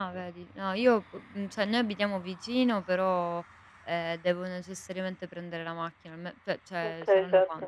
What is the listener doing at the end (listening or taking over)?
listening